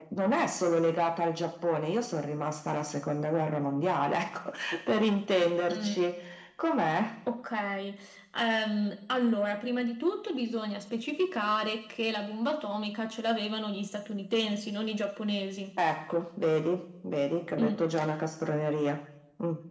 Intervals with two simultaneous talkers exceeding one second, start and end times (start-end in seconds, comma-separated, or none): none